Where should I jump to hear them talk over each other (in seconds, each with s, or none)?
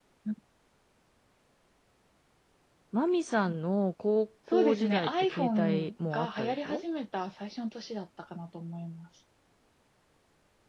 4.5 s